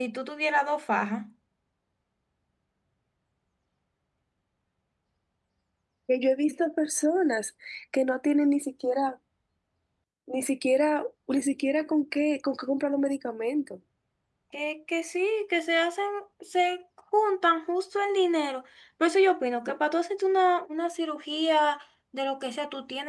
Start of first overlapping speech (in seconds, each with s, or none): none